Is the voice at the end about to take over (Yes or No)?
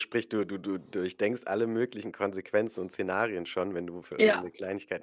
No